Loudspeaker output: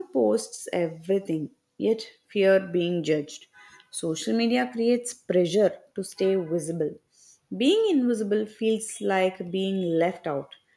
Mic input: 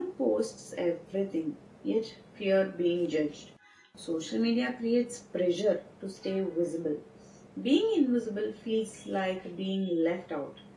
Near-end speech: none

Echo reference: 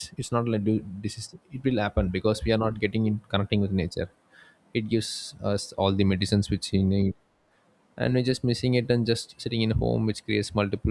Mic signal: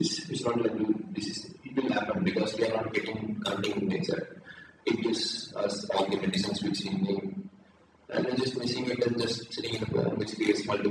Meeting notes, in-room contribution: none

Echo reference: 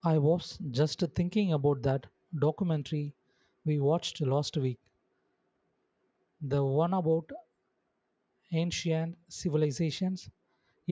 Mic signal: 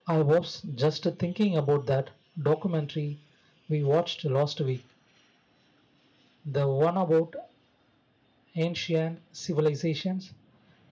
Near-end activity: none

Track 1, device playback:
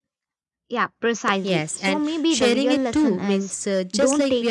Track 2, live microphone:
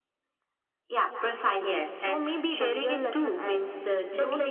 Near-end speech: none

